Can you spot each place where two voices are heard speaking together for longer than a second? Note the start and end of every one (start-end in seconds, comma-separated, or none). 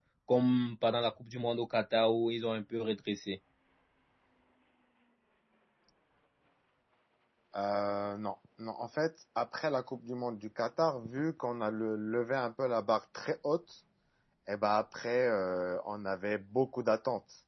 none